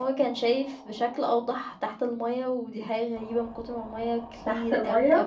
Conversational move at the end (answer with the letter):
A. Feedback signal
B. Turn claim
A